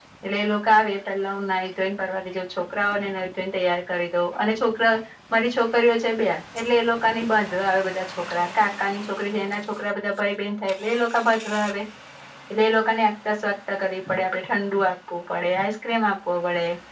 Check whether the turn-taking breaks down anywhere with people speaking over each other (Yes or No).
No